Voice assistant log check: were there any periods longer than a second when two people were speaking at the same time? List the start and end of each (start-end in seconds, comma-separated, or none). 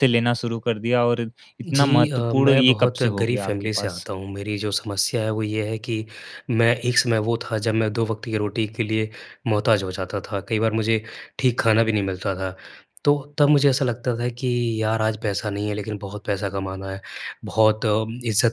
1.7-4.0